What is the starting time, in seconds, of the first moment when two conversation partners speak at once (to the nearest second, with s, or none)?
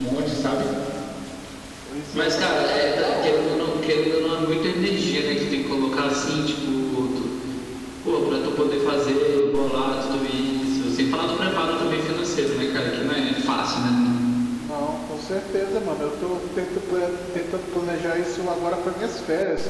2 s